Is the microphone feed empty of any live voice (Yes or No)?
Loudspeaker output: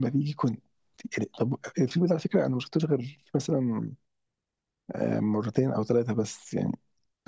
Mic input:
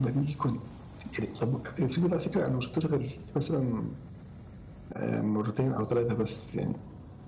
Yes